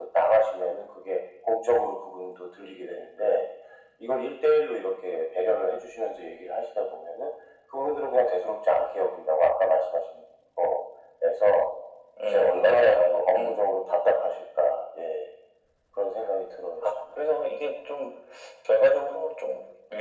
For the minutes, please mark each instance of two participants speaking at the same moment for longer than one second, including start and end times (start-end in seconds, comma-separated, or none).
12.3-13.6